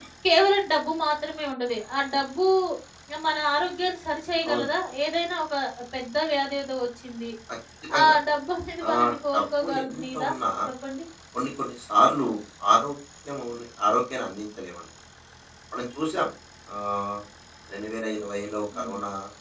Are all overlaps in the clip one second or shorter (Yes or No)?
No